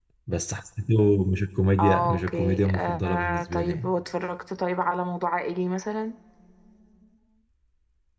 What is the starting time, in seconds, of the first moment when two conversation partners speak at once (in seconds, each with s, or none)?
1.8 s